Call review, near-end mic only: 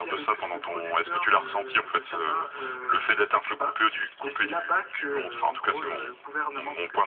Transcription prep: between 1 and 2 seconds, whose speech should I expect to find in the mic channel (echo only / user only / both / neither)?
echo only